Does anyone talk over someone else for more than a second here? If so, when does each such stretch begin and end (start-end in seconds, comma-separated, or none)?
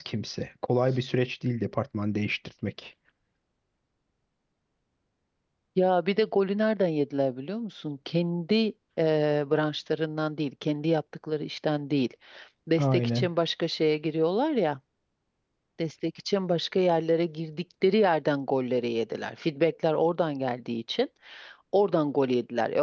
none